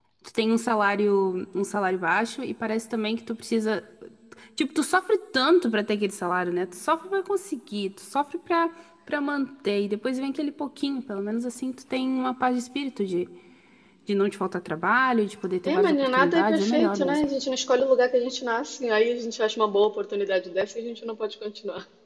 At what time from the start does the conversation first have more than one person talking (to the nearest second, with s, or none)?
16 s